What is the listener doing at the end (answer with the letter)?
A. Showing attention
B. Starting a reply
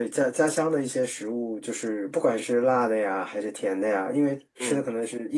A